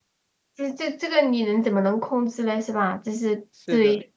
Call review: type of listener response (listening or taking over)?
listening